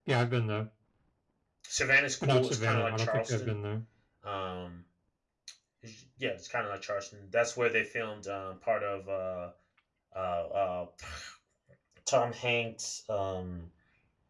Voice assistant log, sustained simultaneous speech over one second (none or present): present